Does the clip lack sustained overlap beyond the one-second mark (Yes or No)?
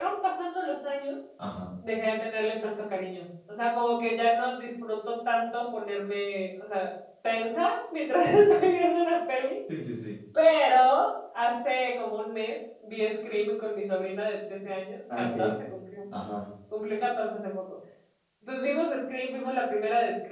Yes